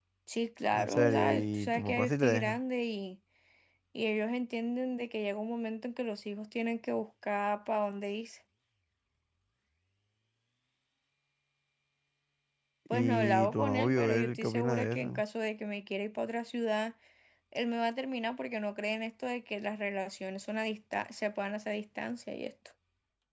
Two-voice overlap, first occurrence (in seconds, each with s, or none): 0.7 s